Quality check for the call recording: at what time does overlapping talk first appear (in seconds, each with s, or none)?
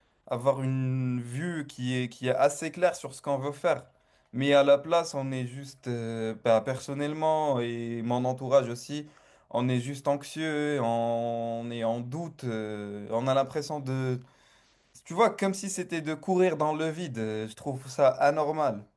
none